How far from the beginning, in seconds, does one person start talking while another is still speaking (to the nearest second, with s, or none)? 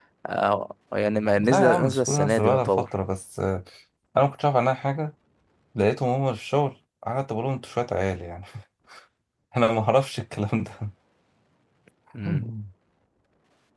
1 s